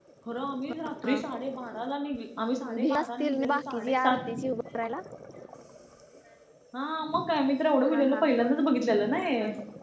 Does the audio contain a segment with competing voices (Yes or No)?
Yes